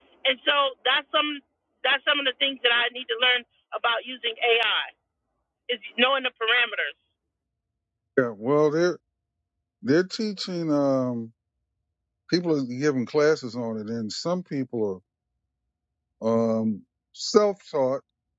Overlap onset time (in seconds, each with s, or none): none